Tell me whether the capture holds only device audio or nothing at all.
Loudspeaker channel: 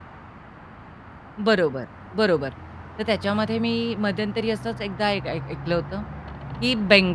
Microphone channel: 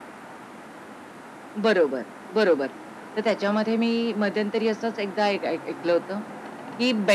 Yes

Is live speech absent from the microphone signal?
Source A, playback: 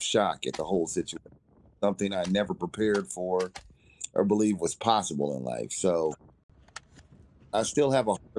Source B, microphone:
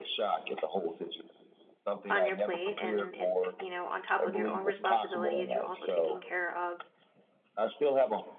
No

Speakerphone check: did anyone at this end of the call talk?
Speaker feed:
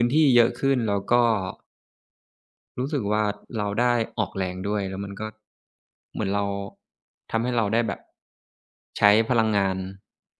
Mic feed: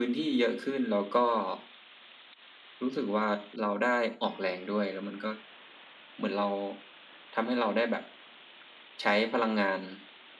No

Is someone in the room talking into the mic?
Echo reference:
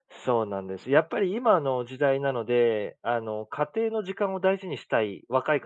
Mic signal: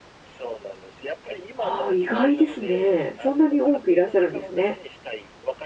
Yes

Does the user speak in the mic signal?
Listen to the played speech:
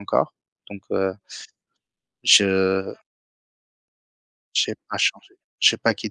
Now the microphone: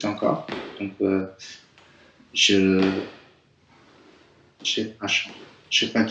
No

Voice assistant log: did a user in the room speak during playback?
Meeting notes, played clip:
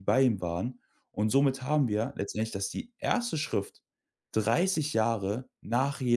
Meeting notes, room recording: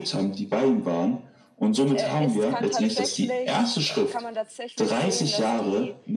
Yes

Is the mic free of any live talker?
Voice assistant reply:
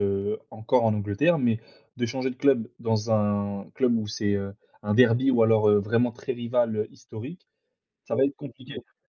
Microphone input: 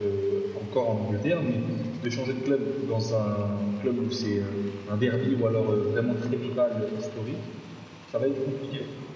Yes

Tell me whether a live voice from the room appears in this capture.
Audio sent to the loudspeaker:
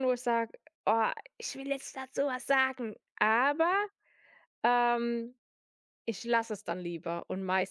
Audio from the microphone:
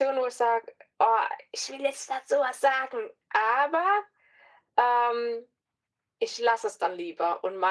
No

